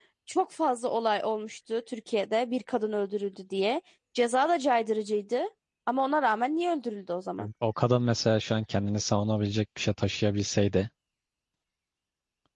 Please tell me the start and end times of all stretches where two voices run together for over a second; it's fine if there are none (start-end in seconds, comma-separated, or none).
none